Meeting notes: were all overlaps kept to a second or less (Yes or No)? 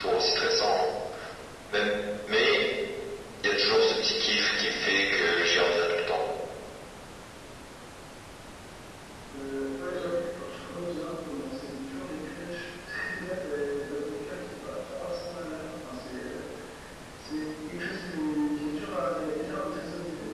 Yes